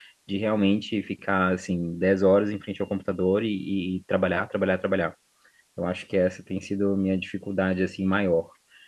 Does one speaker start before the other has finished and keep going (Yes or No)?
No